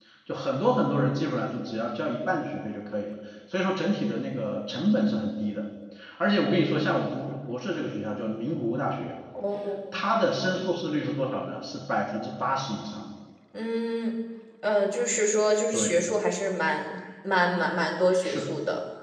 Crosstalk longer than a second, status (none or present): none